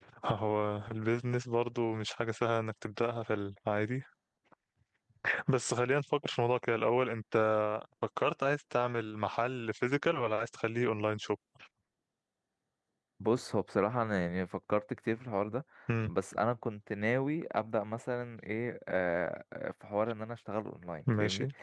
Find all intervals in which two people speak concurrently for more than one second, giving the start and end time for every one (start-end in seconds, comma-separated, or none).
none